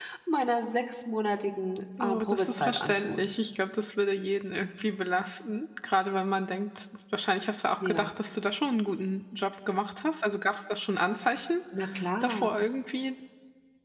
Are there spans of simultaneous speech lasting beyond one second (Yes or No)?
Yes